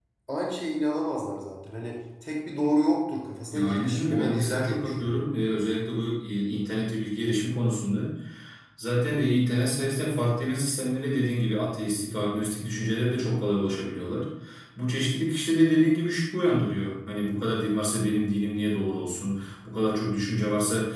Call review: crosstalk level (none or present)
present